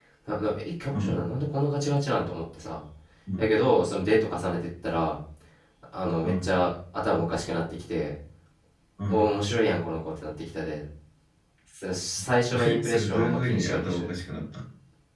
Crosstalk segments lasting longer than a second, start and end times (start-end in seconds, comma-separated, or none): 12.7-14.1